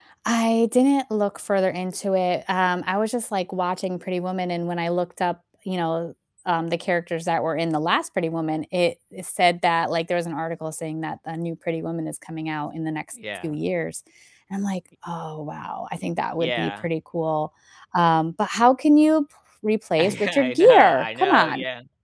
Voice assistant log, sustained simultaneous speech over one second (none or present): present